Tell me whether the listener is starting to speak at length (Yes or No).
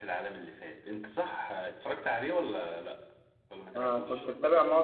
Yes